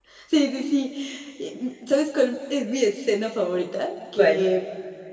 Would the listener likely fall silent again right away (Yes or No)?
Yes